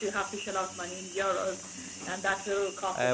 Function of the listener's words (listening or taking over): taking over